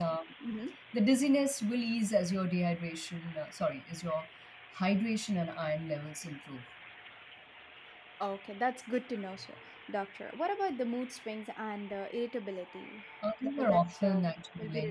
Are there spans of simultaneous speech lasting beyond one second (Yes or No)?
Yes